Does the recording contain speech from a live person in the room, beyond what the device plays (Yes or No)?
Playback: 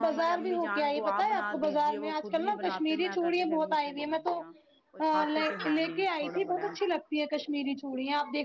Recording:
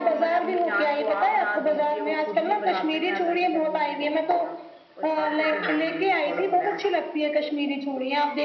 No